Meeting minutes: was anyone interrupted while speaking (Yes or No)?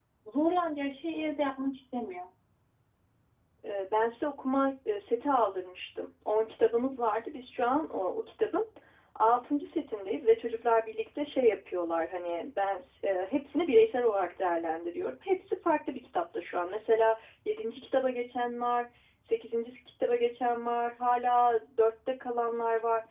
No